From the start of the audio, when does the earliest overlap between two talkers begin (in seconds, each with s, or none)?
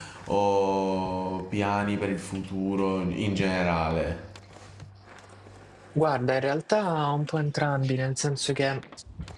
none